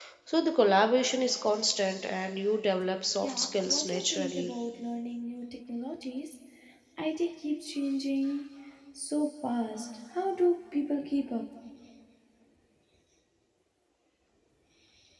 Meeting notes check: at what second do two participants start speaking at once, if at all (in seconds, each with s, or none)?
3.2 s